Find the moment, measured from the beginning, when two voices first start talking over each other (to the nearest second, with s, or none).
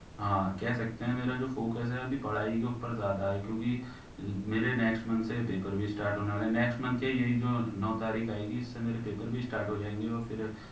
none